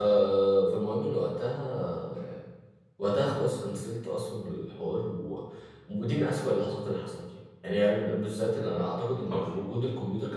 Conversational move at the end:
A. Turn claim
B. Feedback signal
B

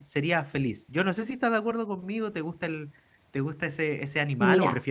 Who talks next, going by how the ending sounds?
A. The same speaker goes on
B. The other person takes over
B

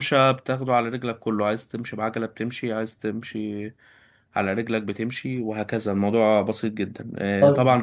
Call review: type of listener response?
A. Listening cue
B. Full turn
A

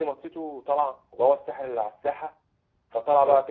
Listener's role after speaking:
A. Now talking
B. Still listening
B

